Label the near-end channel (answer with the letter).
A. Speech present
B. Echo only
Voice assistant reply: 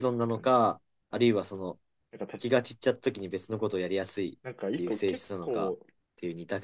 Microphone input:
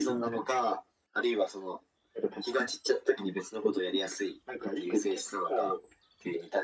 B